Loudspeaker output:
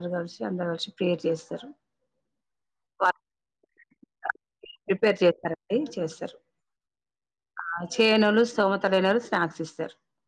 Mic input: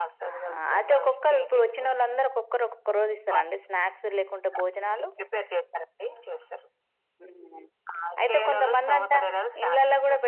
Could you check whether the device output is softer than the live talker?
Yes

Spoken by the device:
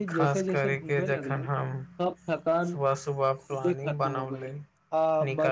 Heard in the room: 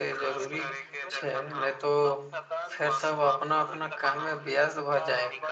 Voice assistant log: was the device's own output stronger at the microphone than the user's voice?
No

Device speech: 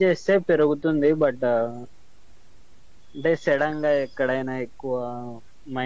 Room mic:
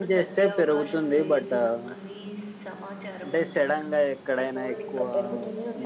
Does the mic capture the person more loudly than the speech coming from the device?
No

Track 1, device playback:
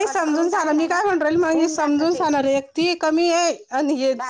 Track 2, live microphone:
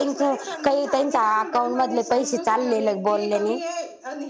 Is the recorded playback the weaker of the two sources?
Yes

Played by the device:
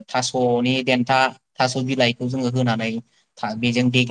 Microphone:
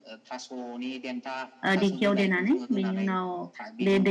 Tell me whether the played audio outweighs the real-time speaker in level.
No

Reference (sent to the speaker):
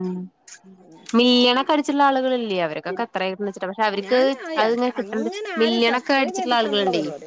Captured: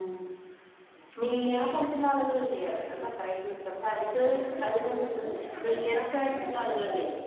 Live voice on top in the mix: No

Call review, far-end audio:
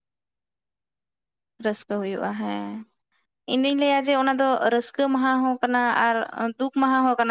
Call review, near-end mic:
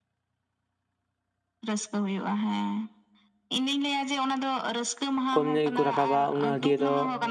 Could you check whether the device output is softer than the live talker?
Yes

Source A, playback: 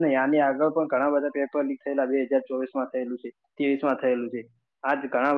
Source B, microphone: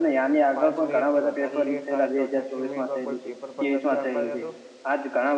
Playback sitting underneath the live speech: No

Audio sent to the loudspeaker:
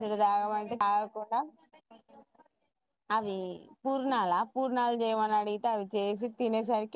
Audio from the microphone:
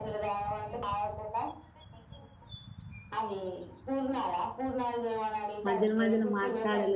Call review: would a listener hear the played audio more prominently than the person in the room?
No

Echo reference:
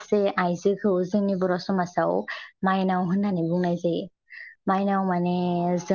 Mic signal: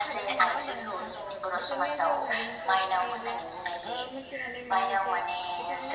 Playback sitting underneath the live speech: No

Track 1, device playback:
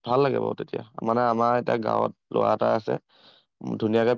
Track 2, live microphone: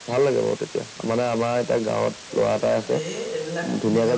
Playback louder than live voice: Yes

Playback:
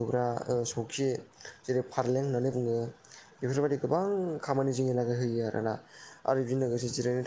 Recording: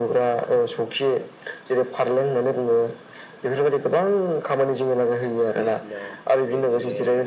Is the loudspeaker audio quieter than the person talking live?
No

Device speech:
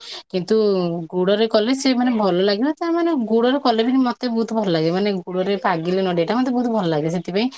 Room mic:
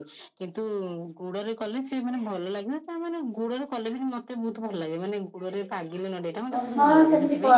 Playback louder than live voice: No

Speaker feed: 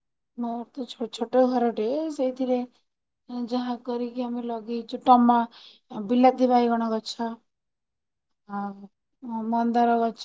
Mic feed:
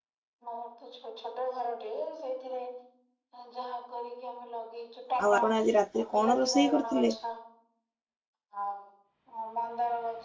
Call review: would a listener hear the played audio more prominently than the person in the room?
No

